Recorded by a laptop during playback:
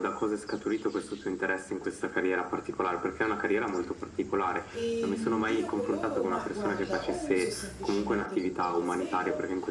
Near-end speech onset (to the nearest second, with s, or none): 5 s